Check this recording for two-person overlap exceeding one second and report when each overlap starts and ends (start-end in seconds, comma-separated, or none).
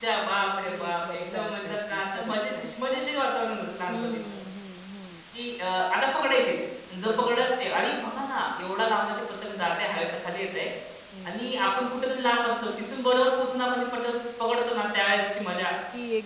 0.7-2.7